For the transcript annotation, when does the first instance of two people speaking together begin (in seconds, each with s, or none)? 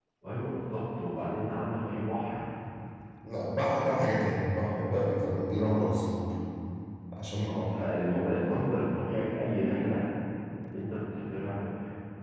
none